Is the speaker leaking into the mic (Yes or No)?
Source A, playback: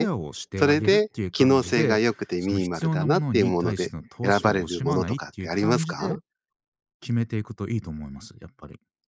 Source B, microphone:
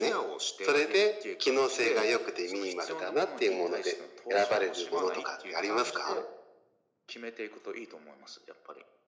Yes